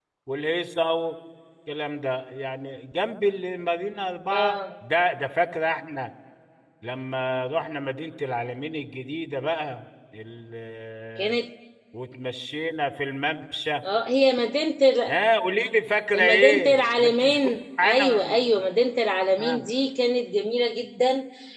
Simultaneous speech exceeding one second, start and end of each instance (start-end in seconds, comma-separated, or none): 16.1-18.6